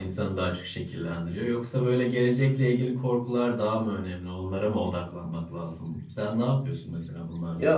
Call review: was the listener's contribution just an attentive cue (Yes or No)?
No